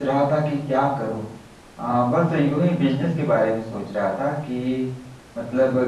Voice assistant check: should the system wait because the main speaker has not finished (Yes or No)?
Yes